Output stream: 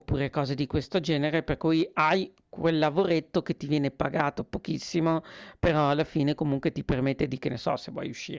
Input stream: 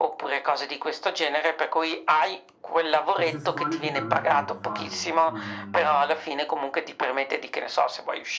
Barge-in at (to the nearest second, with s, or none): 3 s